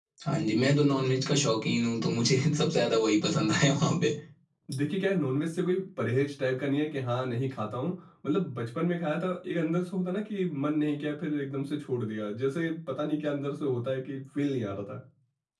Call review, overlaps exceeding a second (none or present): none